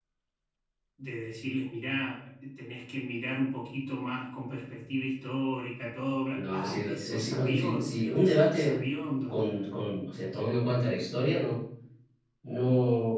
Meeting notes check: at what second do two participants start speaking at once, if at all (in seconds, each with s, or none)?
6.3 s